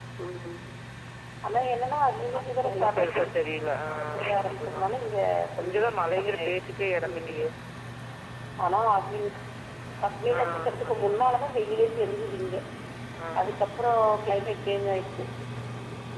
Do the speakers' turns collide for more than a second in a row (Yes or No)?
Yes